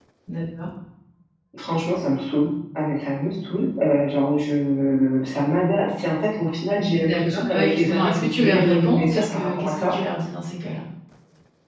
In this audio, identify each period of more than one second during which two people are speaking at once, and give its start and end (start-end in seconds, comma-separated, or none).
7.0-9.9